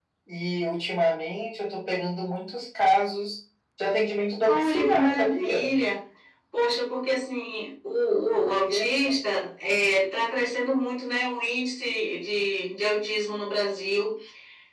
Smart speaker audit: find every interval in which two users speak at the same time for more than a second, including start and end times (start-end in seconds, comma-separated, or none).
4.5-5.7